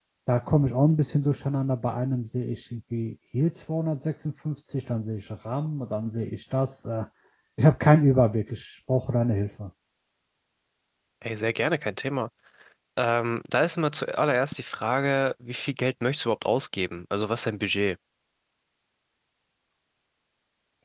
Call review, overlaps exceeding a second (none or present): none